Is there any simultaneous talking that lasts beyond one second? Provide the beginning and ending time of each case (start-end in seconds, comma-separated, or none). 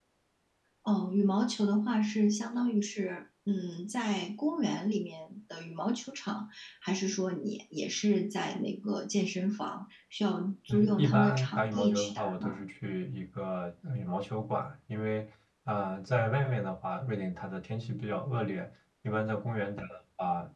10.7-12.6